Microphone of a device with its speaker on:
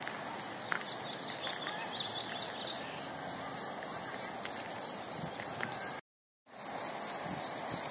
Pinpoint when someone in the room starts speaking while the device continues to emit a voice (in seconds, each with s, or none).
none